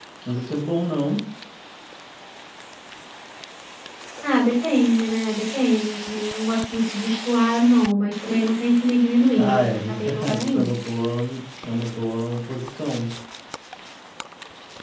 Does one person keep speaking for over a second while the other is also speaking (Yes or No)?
Yes